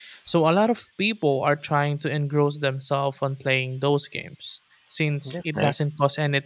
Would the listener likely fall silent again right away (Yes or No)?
Yes